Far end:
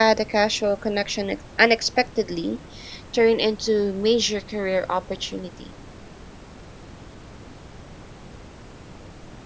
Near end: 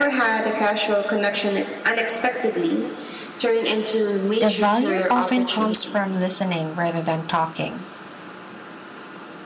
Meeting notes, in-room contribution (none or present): present